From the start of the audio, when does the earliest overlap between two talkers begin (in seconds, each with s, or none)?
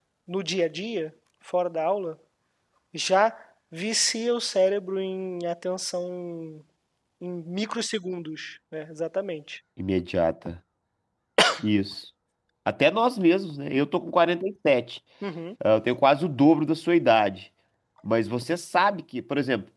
none